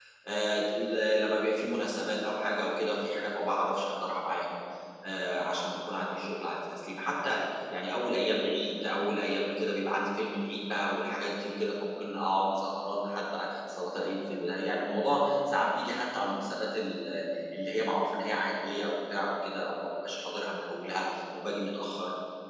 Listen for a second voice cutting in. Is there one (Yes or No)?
No